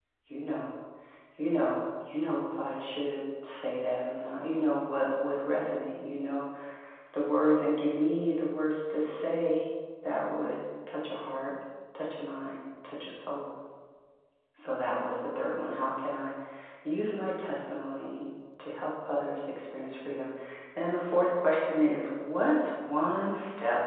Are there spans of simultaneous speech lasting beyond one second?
No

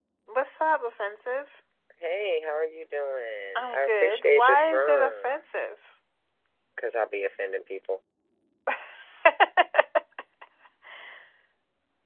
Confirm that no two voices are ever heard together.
No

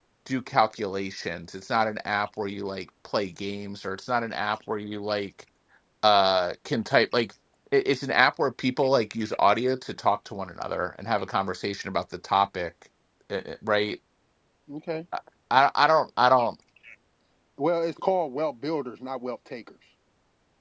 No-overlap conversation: Yes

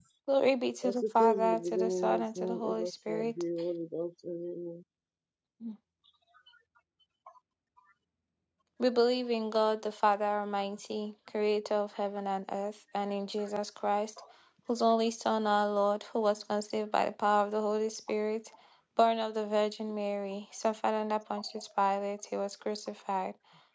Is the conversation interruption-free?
No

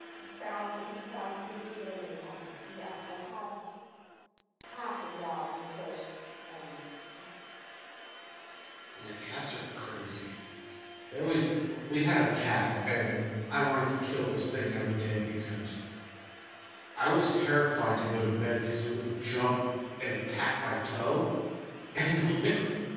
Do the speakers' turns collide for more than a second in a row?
No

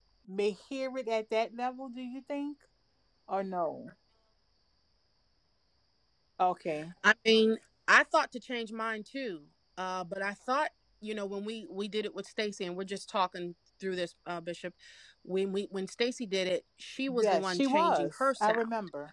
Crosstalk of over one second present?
Yes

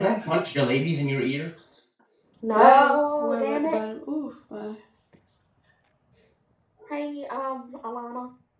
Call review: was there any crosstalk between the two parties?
Yes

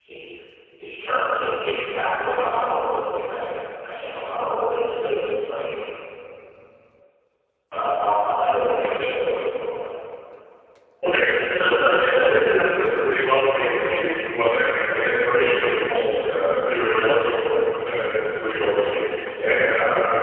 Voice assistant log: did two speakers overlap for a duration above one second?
No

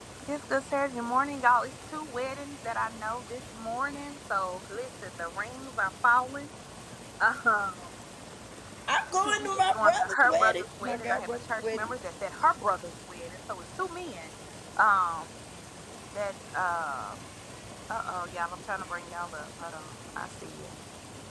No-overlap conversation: No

